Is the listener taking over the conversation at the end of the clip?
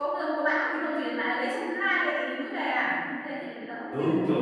Yes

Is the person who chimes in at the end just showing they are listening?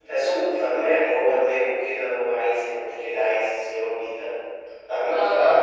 Yes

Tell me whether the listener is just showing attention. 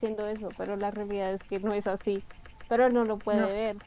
Yes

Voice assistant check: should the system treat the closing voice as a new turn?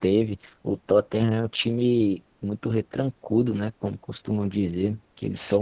No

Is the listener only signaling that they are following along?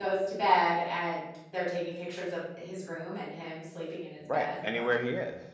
No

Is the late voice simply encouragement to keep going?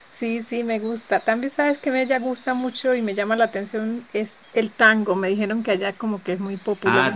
No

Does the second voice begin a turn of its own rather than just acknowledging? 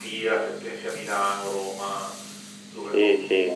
Yes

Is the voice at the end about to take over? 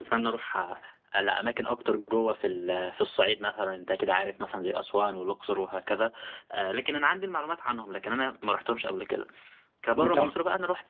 No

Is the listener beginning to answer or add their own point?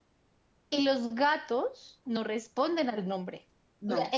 No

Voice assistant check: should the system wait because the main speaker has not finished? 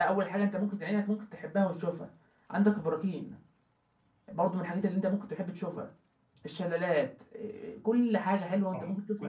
No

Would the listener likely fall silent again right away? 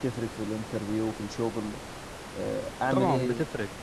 No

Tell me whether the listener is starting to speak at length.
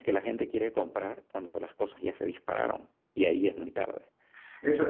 Yes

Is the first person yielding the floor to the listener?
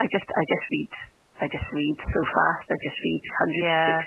Yes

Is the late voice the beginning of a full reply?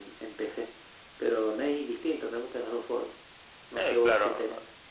Yes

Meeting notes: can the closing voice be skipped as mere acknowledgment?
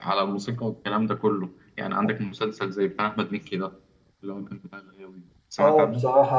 No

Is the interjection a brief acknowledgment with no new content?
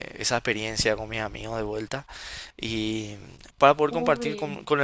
Yes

